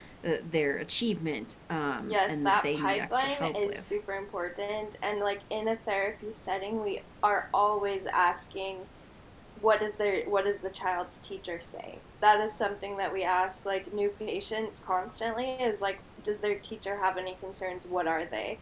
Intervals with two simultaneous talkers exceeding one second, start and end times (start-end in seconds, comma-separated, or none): 2.1-3.8